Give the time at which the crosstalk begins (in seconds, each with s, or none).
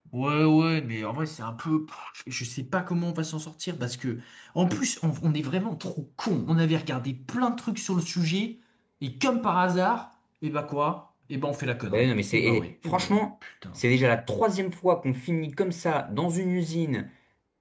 11.9 s